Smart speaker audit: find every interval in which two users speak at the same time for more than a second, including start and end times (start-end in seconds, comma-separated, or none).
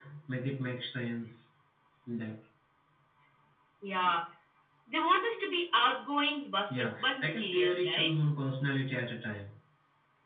6.7-8.1